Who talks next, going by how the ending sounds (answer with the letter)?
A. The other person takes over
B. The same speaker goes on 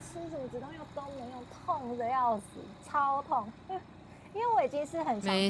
B